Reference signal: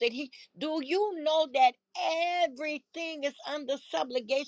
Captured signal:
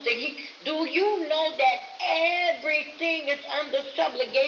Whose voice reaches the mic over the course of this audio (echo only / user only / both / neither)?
echo only